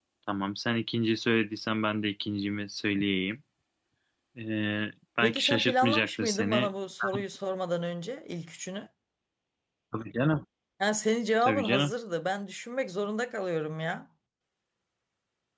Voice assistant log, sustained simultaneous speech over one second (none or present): present